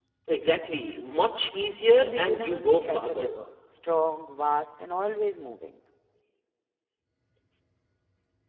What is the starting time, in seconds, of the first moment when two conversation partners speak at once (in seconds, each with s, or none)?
1.9 s